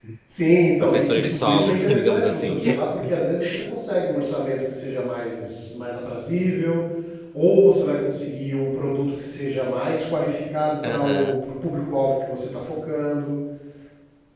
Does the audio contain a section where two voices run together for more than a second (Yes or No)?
Yes